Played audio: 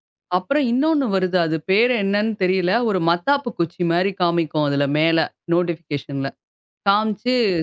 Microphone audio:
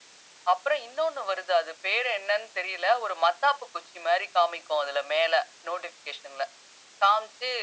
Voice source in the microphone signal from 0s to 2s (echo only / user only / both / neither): echo only